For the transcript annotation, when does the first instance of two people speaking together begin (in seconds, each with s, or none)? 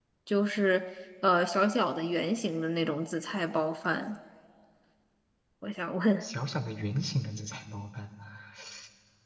none